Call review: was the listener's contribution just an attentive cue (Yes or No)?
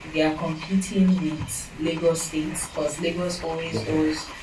Yes